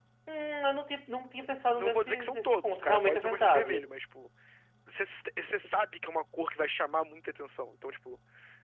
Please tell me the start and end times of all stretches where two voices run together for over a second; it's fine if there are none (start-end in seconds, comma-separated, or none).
1.8-3.9